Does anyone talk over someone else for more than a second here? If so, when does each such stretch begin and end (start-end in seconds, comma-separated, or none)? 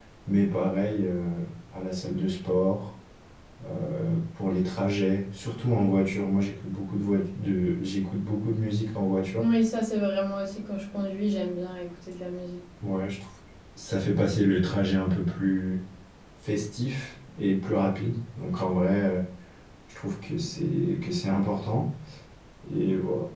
none